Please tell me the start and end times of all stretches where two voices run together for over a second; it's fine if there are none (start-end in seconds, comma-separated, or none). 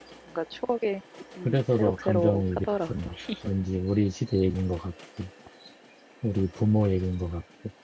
1.4-2.9